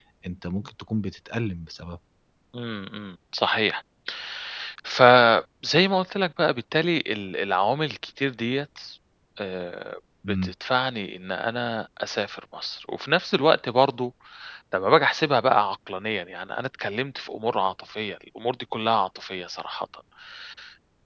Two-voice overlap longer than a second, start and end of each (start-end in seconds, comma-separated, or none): none